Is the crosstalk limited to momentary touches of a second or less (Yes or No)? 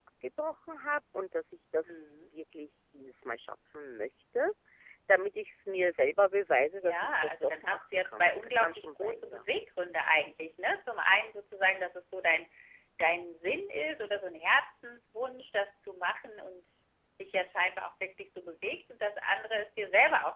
No